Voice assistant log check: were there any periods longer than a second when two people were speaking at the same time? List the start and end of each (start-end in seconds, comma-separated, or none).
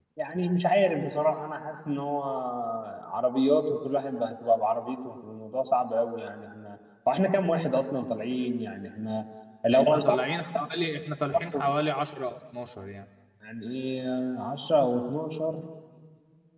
none